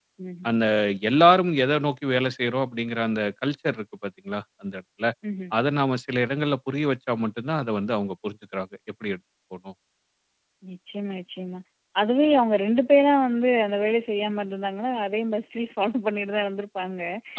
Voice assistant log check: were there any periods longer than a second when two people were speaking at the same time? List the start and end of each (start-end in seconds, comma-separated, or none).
none